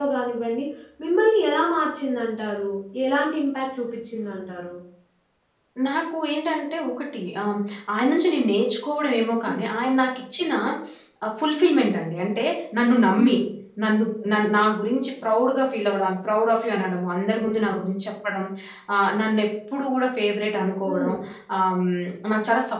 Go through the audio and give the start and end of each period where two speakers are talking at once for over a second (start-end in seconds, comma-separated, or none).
none